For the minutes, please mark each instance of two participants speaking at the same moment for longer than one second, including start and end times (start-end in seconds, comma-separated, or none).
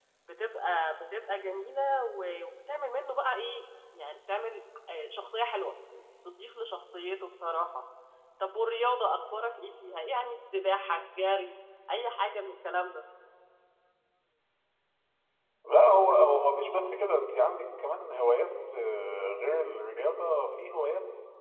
none